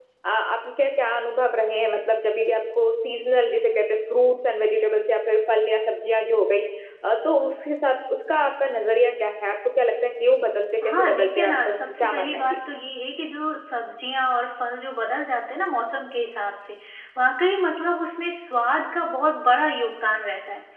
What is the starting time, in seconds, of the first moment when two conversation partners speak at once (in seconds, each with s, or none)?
10.8 s